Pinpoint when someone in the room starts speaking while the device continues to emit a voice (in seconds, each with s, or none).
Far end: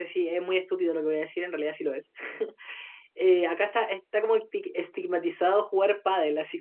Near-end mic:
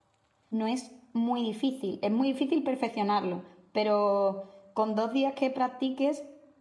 0.5 s